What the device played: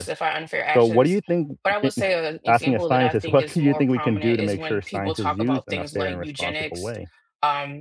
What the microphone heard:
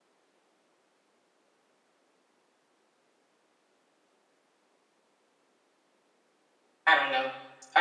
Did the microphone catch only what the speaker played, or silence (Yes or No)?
No